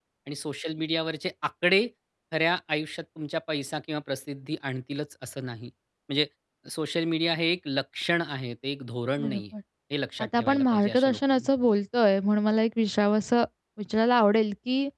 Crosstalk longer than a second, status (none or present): present